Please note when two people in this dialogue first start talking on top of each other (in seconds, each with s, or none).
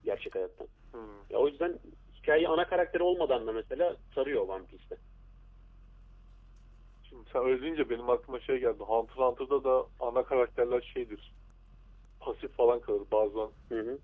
none